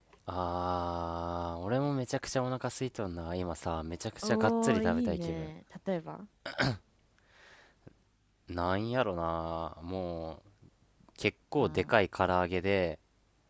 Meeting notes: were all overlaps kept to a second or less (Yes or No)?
No